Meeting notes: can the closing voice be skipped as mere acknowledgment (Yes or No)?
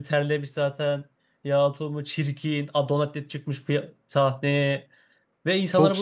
No